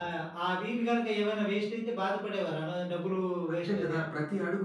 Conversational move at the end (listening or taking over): taking over